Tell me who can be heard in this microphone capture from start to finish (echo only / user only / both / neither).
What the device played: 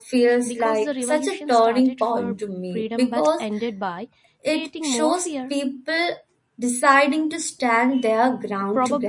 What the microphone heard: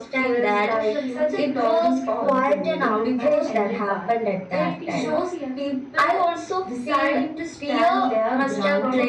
both